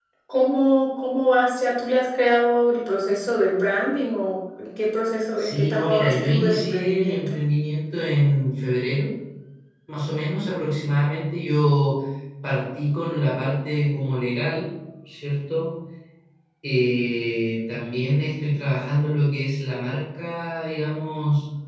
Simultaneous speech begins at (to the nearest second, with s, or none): 5 s